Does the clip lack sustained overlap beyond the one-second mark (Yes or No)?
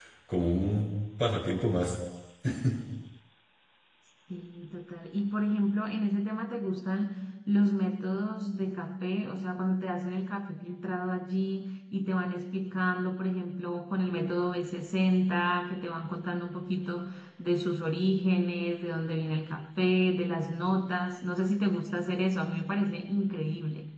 Yes